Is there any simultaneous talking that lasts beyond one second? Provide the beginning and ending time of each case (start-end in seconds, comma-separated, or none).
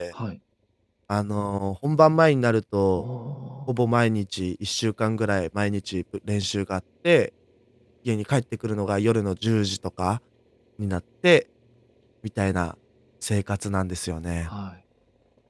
none